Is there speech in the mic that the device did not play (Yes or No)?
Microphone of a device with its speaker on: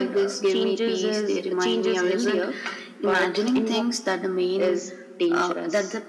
No